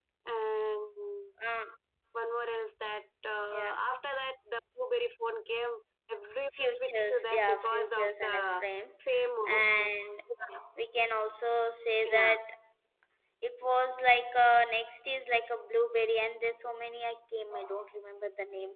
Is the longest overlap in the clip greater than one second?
Yes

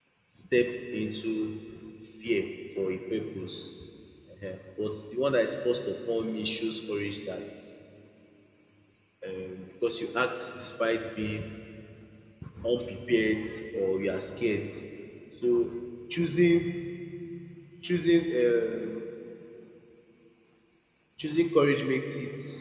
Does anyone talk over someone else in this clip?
No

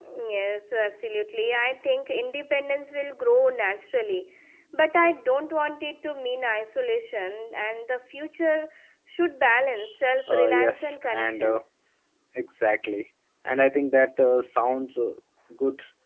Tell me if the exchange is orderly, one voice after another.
No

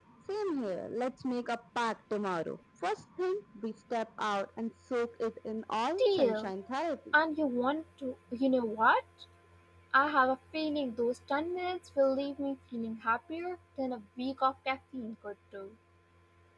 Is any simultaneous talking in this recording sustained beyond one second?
No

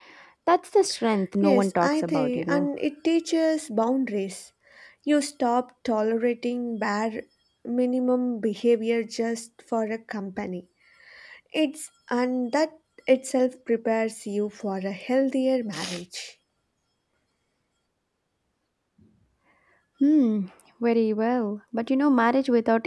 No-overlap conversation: No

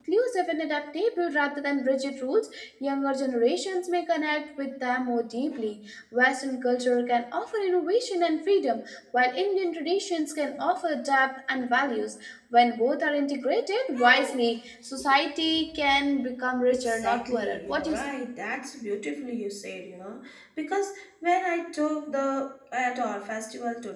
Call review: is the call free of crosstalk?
No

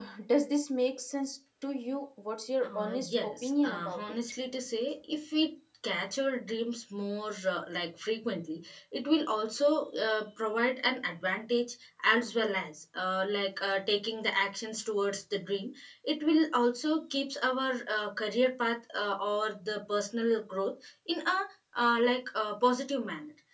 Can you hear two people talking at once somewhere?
Yes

